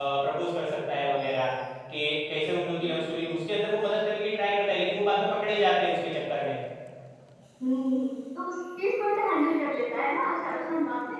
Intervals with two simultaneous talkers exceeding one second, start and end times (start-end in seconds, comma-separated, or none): none